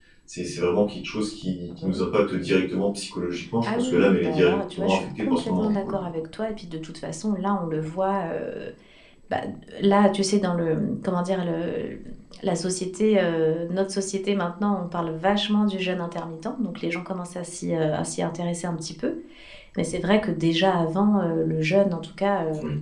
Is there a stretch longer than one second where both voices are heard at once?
Yes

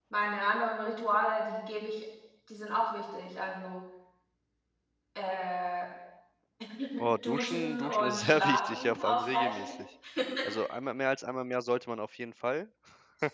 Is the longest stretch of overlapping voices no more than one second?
No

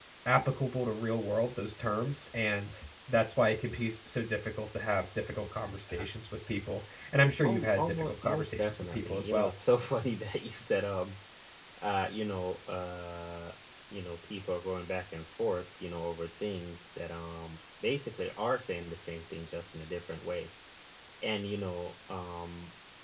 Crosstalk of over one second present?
Yes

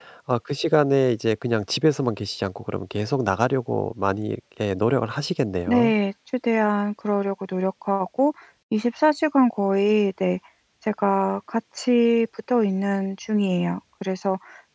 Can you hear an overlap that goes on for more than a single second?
No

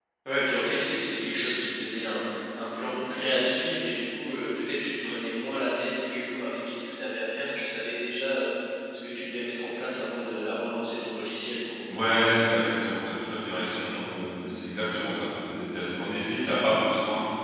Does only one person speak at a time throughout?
Yes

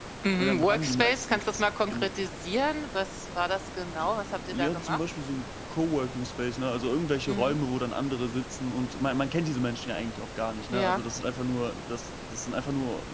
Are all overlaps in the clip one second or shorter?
No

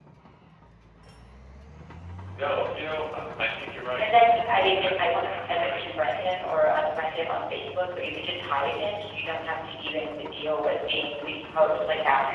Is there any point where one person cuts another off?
Yes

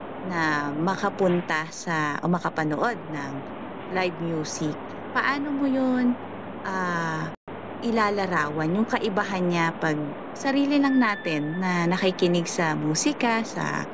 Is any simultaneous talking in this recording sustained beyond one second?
No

